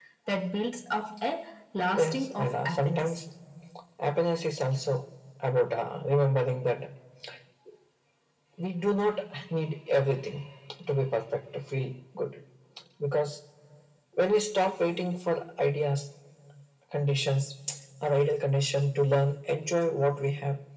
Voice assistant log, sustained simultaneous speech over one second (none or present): present